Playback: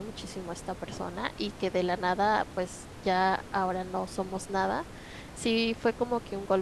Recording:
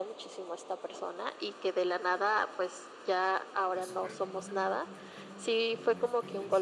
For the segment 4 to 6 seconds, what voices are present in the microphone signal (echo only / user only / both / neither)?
both